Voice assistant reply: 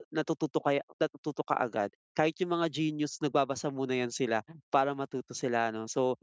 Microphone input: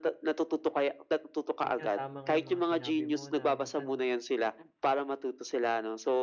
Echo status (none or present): present